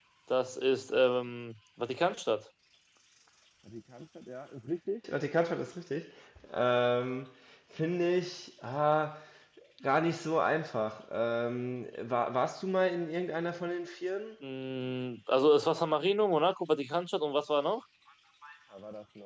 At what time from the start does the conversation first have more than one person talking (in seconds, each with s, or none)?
none